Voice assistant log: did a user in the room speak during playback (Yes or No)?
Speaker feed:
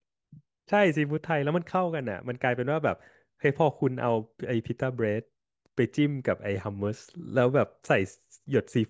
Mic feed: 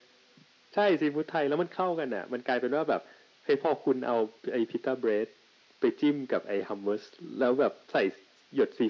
No